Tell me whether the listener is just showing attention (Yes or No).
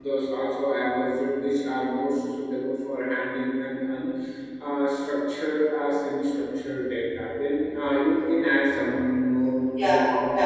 No